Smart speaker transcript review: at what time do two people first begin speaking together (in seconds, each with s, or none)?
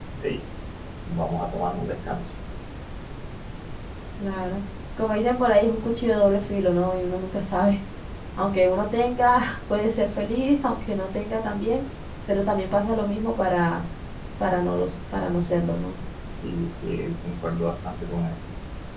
none